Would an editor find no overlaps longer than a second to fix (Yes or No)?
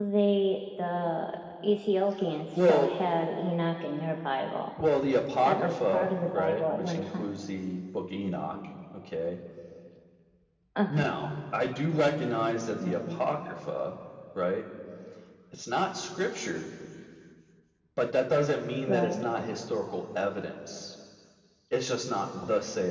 No